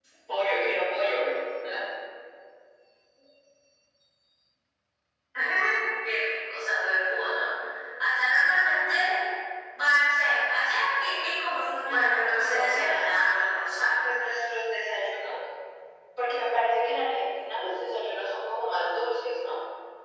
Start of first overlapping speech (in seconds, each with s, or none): 11.8 s